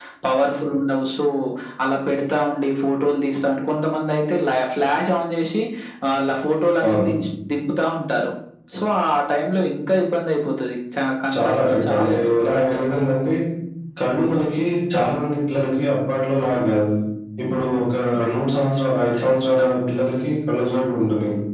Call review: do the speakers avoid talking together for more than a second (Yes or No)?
No